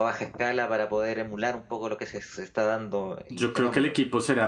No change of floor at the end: No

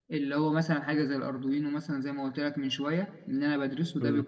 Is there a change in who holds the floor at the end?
No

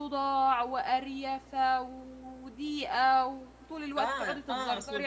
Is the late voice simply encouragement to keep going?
No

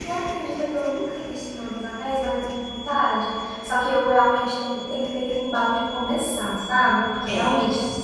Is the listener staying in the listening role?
Yes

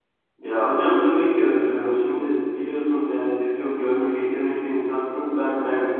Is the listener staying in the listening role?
Yes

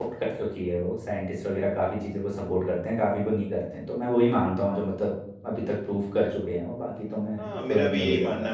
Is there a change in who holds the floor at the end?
Yes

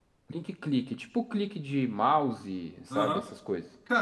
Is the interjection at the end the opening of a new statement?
Yes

